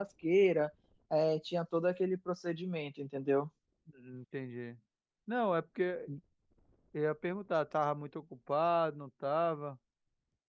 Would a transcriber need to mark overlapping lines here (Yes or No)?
No